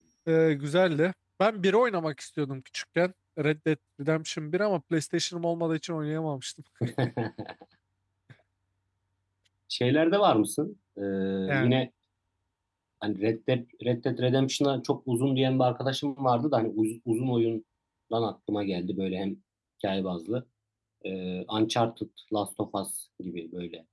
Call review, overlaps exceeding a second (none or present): none